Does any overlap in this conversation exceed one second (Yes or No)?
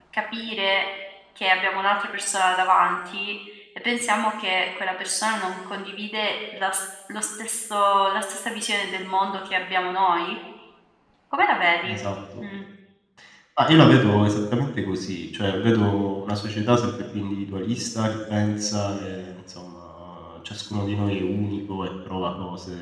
No